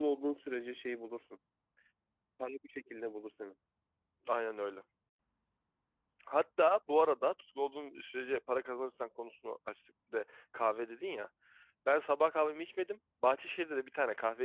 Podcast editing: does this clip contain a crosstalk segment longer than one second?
No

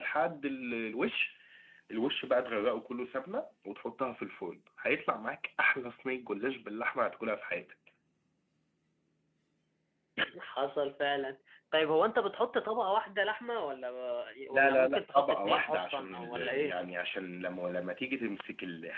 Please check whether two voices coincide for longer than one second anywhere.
Yes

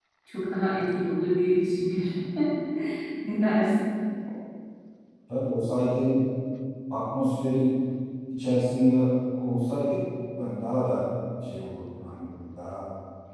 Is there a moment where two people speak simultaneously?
No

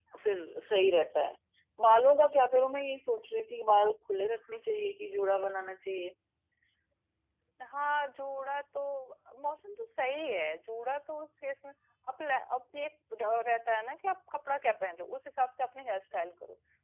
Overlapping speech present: No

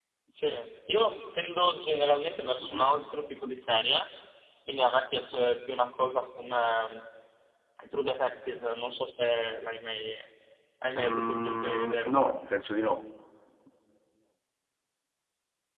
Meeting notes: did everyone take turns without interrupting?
No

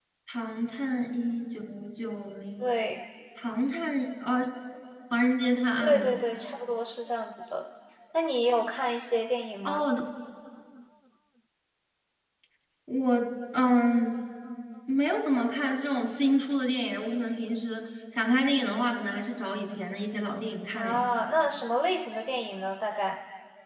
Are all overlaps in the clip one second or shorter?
Yes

